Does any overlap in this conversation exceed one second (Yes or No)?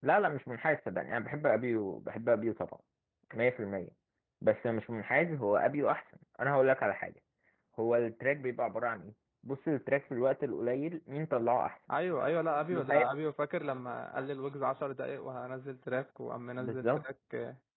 No